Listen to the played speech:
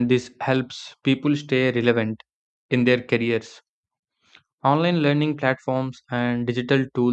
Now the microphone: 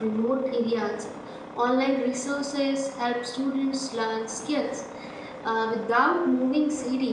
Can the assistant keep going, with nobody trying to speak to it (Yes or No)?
No